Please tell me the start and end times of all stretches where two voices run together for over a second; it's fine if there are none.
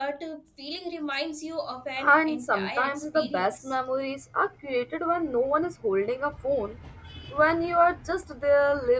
2.0-3.7

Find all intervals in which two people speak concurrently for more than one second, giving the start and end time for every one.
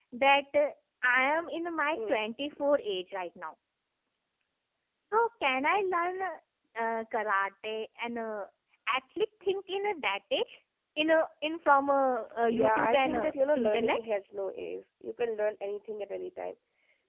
12.5-14.1

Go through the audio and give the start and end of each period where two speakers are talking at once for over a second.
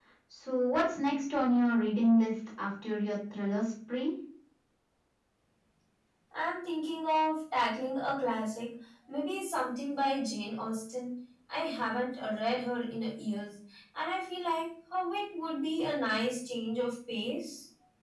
none

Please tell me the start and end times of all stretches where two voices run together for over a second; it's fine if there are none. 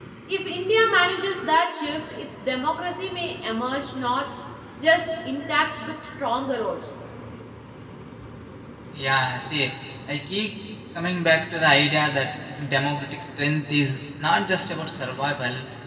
none

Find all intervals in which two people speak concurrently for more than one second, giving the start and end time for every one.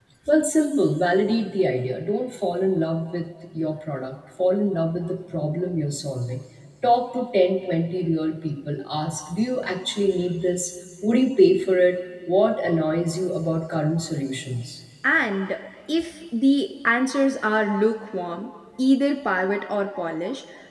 none

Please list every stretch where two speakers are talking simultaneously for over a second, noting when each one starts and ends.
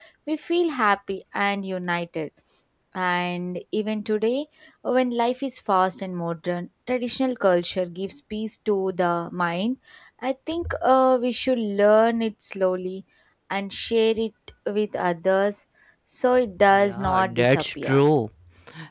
16.7-18.0

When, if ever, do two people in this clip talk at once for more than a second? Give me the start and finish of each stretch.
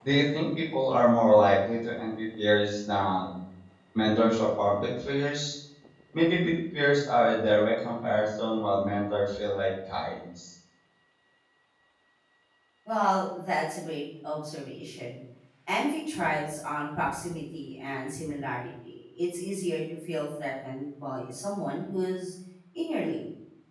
none

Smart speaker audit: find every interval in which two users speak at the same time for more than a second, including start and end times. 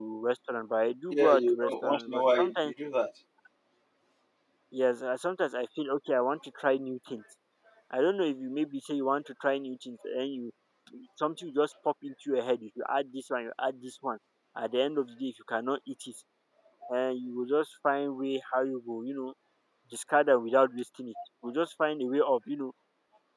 1.1-2.7

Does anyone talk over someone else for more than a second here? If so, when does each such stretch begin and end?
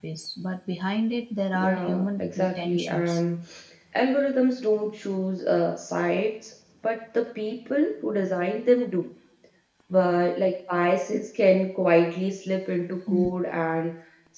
1.5-3.2

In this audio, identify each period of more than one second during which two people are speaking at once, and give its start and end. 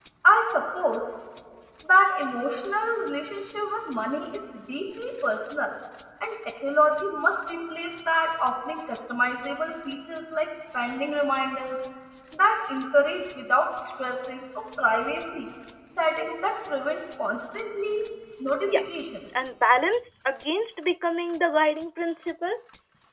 none

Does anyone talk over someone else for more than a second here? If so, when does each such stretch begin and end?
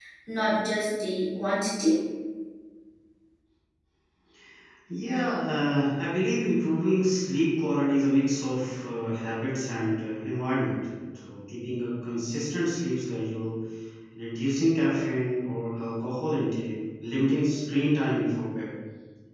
none

